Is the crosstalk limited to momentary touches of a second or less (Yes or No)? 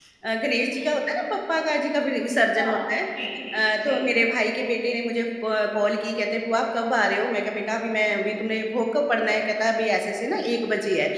Yes